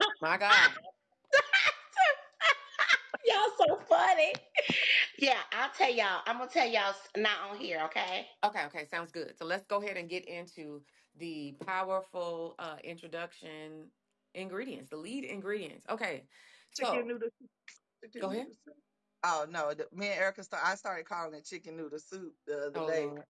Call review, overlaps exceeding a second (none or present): none